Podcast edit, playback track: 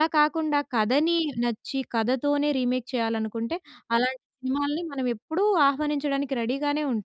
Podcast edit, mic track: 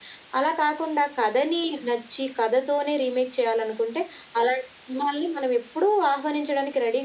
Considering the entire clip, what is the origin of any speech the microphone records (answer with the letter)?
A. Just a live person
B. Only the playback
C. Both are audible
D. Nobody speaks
B